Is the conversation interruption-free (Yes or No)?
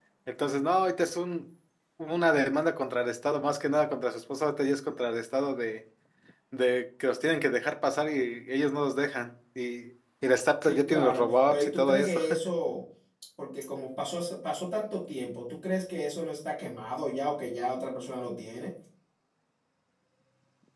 No